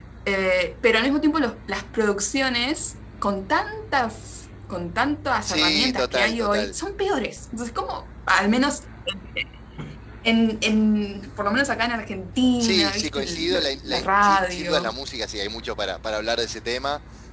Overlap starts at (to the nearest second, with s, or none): 5 s